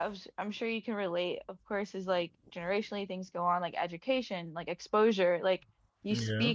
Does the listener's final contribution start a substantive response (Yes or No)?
No